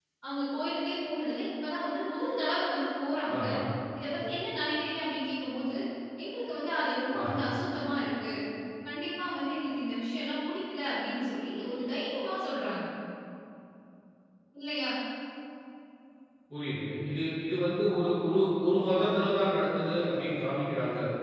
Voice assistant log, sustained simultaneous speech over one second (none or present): none